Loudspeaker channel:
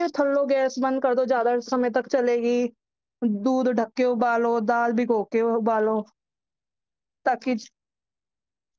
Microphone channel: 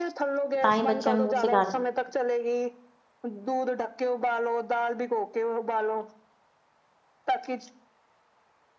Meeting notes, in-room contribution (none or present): present